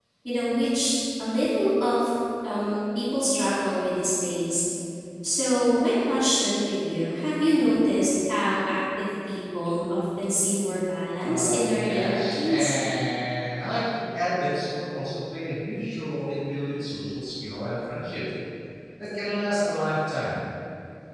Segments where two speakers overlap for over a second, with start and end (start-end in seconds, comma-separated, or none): 11.2-12.7